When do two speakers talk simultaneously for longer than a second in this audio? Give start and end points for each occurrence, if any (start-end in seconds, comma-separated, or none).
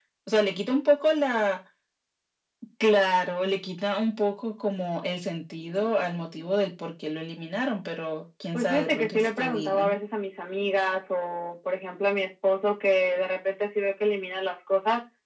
8.5-9.9